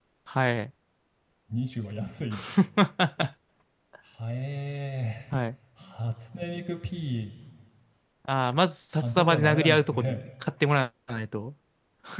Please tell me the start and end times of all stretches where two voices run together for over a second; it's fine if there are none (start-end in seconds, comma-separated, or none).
9.0-10.3